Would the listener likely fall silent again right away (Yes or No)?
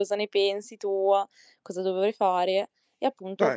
Yes